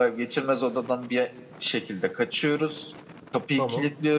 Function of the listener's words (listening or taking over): listening